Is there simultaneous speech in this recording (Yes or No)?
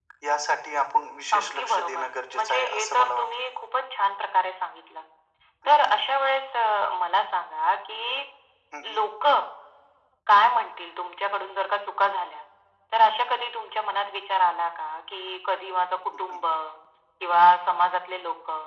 Yes